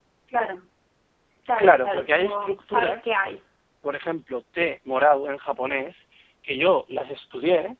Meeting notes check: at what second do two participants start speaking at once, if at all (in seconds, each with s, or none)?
1.6 s